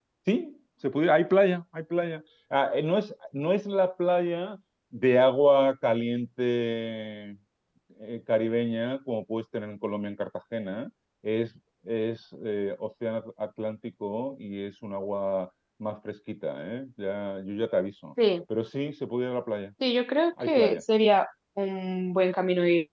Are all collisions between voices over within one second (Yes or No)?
Yes